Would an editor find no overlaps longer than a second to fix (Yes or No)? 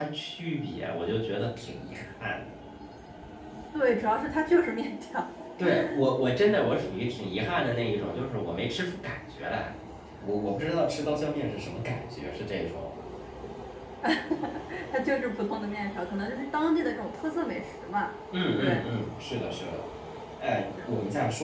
Yes